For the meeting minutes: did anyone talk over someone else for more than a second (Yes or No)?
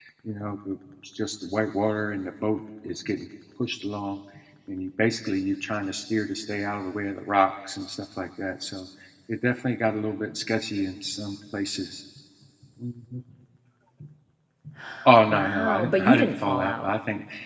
Yes